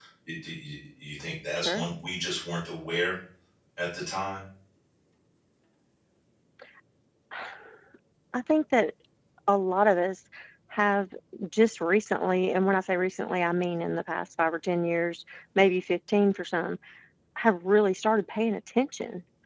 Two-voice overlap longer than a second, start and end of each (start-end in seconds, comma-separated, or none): none